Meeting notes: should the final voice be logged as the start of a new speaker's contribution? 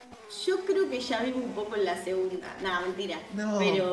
No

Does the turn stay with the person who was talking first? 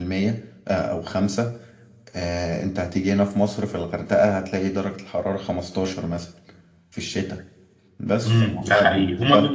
No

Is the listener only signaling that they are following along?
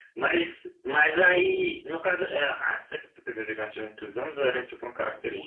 No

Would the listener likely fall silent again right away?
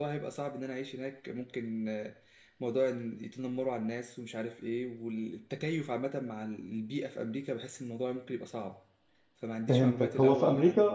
No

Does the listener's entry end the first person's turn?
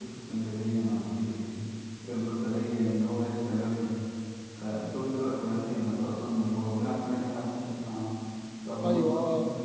No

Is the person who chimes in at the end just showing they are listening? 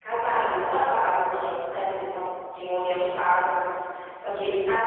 Yes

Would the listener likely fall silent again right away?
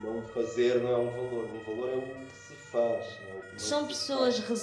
No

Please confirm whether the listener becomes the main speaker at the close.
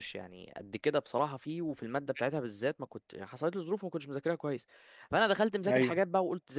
No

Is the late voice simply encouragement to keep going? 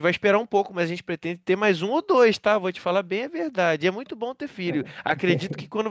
Yes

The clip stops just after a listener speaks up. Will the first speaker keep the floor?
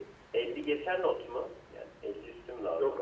No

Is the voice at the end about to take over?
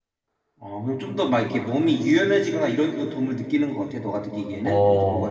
Yes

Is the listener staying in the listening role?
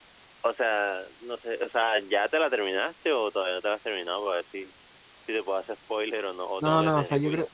No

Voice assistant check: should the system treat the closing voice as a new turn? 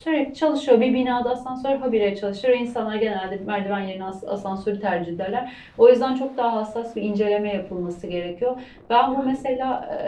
No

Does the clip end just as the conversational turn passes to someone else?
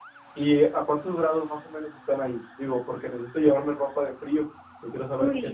Yes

